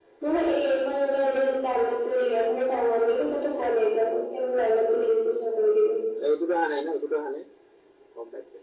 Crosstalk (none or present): none